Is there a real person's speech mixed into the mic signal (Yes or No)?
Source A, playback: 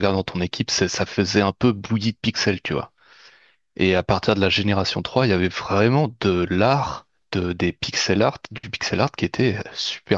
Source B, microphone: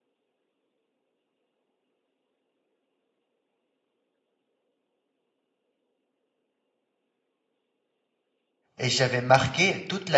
Yes